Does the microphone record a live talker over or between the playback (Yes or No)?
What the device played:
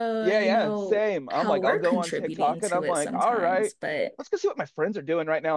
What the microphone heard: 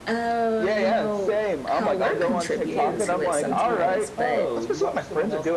Yes